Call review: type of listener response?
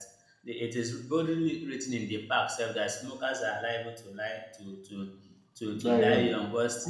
listening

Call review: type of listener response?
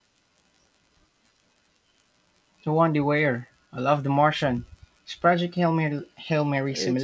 taking over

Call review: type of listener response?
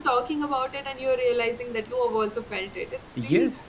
taking over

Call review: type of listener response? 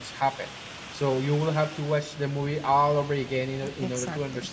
taking over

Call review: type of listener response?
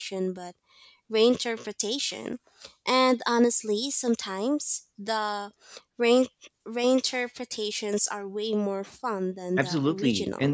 taking over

